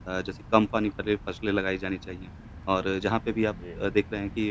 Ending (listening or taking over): listening